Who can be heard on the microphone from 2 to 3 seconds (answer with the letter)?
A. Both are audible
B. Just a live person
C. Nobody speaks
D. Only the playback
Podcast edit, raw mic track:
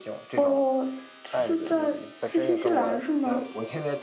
A